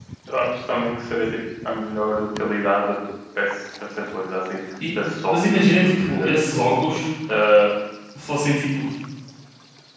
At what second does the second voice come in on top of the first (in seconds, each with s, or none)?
4.8 s